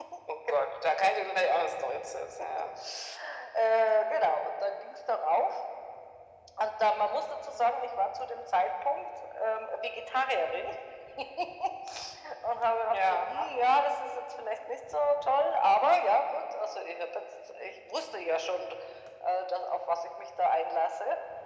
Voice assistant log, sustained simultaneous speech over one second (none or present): none